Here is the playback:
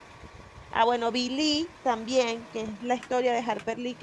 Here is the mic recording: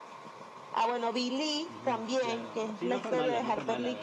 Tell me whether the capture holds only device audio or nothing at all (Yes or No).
No